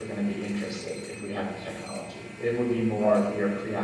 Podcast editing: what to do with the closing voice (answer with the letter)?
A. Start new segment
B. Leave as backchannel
B